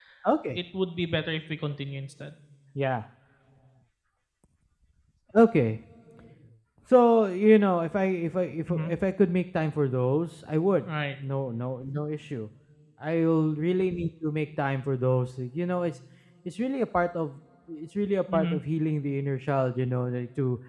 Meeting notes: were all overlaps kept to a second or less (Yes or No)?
Yes